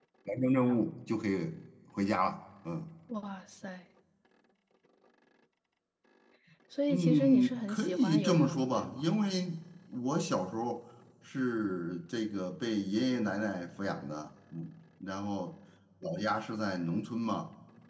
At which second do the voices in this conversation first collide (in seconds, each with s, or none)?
6.9 s